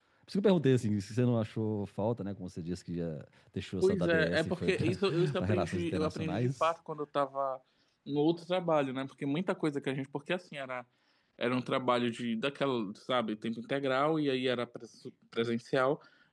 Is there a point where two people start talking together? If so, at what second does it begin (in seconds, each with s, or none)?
3.8 s